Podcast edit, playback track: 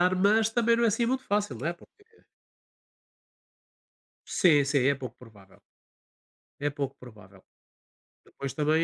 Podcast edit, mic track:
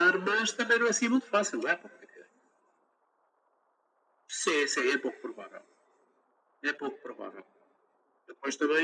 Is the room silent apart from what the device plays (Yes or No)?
Yes